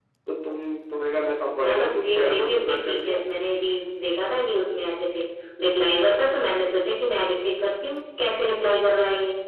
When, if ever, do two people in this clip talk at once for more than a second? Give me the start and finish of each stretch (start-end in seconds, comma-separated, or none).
1.6-3.2